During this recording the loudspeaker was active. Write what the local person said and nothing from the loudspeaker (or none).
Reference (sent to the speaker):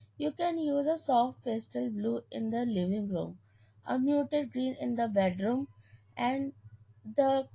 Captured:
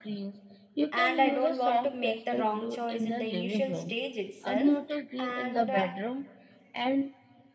and I don't want to make the wrong choice in the initial stage itself. And uh,